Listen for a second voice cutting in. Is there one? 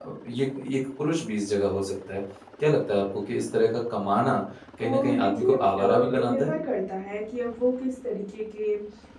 Yes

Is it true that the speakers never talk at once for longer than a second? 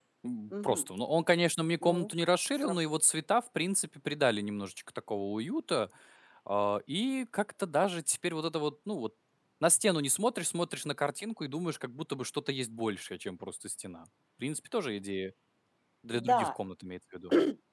Yes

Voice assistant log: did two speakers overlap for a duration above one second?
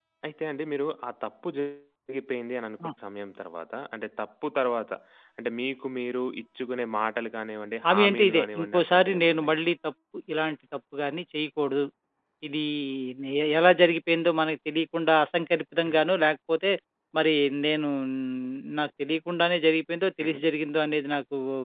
Yes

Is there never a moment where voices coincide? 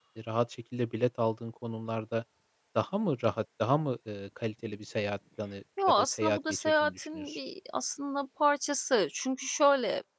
No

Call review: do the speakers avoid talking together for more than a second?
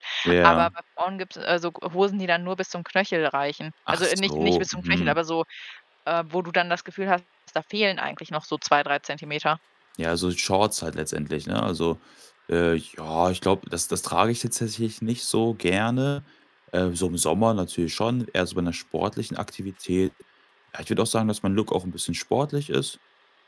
No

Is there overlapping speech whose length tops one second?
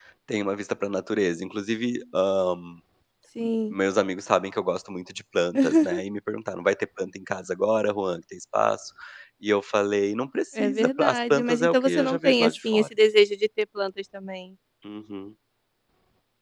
Yes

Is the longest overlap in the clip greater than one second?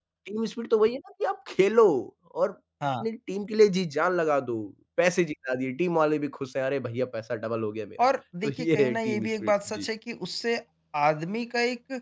Yes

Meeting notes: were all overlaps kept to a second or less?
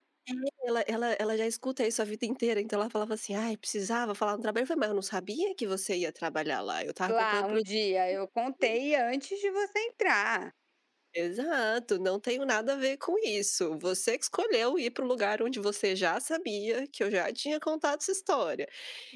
Yes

